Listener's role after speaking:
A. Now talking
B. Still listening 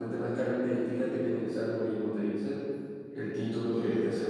B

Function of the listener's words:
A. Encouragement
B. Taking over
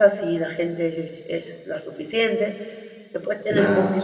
A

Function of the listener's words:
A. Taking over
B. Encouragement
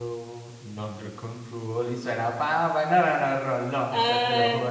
B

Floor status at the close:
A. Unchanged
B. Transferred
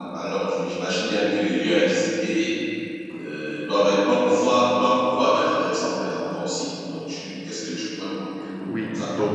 B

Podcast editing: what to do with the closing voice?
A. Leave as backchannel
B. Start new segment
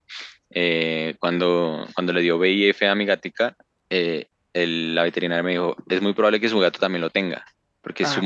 A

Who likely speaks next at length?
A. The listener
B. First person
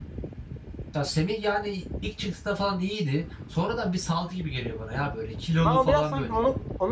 A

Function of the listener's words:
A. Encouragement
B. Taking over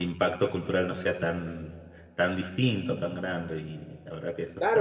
B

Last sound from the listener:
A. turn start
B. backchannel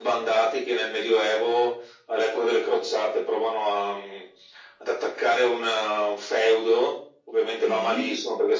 B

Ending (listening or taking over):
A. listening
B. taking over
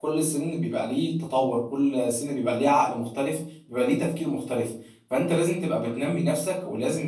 A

